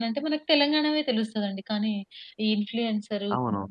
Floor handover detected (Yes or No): No